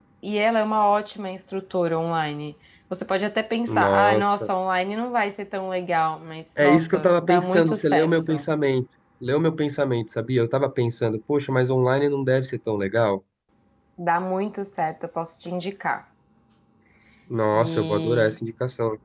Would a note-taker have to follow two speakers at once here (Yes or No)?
Yes